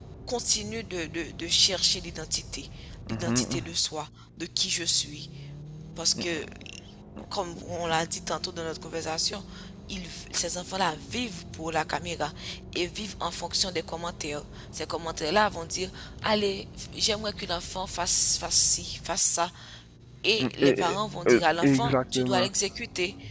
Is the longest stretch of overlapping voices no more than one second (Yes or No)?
No